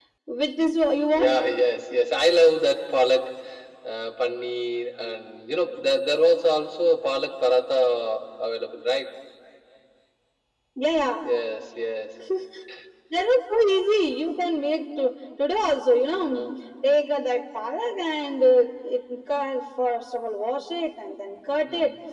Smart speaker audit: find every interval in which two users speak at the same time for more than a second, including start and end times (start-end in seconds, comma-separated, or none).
none